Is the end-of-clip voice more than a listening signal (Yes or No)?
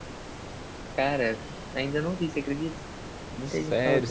Yes